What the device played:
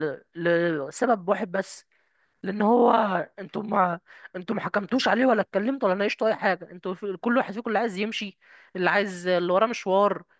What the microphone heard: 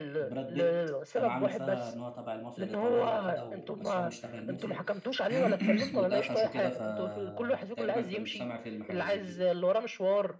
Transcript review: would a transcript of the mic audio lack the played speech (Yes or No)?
No